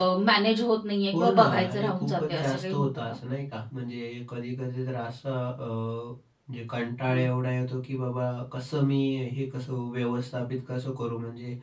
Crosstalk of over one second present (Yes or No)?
Yes